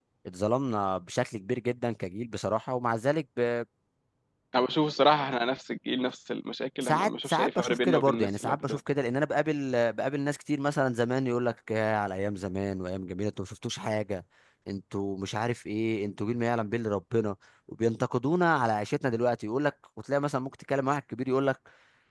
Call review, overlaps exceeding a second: present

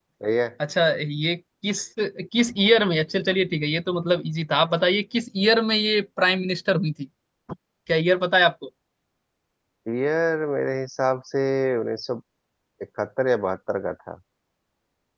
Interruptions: none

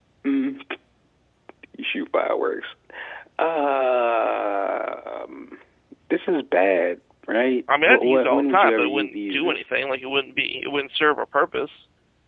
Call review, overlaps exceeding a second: present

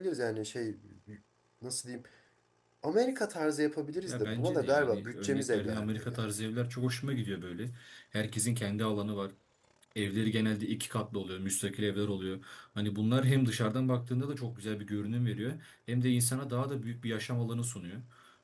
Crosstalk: present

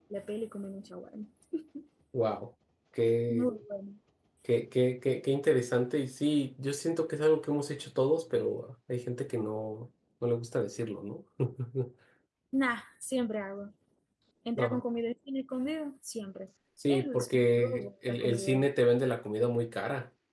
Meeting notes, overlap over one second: present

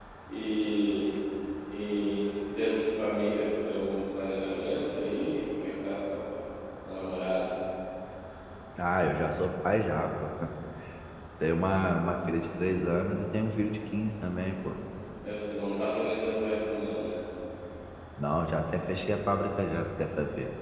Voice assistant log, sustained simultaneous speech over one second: none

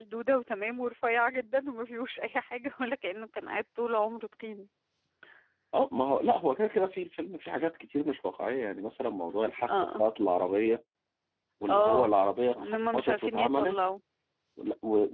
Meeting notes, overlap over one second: present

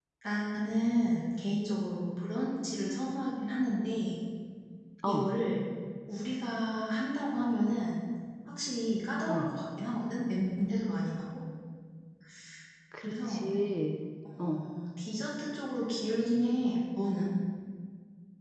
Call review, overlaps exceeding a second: none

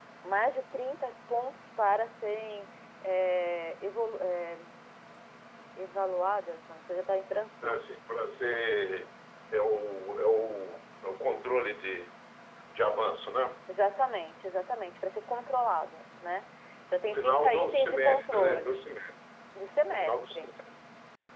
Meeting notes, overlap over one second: present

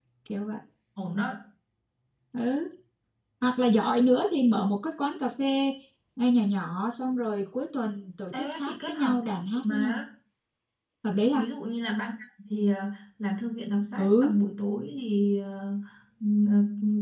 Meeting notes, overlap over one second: present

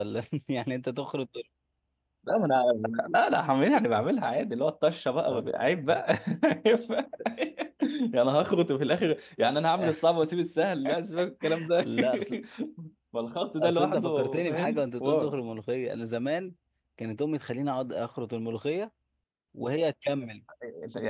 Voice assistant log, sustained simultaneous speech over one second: present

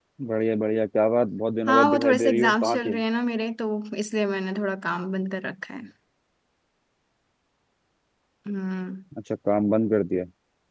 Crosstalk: present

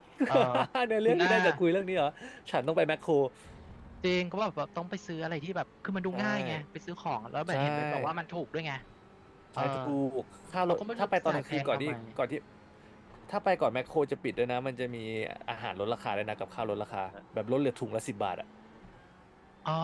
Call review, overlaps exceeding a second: present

